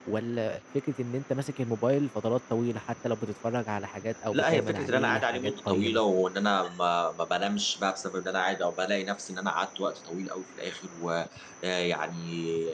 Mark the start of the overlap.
4 s

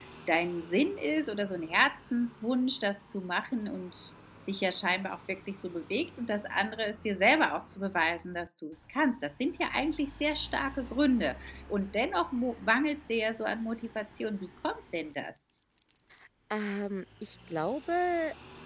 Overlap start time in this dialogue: none

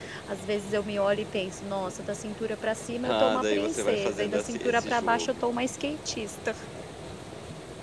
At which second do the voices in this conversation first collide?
3 s

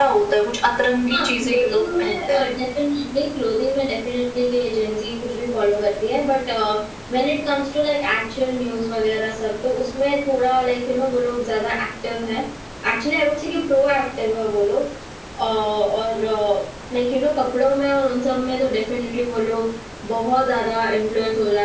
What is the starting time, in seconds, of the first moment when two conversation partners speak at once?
1 s

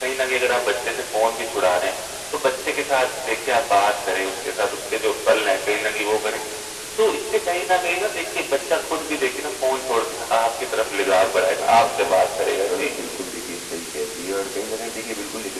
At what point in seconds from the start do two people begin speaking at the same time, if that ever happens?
11 s

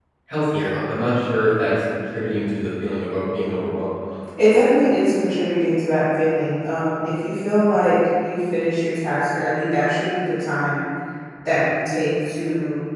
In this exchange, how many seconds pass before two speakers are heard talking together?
none

